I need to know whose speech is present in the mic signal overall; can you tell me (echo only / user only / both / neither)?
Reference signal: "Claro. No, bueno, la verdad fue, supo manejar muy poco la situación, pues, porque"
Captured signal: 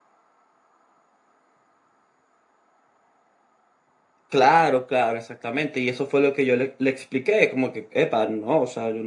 user only